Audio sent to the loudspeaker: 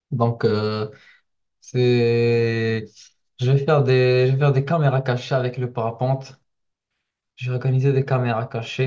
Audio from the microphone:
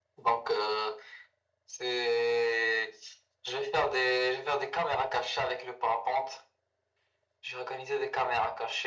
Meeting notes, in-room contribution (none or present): none